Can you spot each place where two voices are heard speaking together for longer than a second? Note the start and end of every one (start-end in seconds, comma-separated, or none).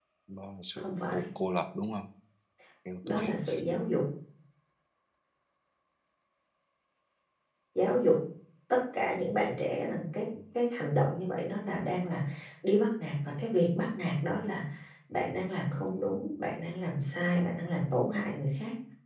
none